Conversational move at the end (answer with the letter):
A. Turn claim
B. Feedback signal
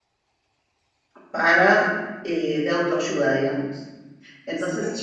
B